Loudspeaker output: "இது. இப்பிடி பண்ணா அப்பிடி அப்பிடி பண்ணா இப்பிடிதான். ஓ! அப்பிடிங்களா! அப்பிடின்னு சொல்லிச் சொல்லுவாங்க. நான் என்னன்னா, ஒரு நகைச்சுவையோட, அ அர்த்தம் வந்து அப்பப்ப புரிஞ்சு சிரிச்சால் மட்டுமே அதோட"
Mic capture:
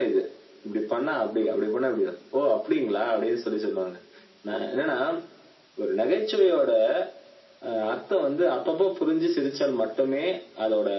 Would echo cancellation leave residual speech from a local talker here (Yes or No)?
No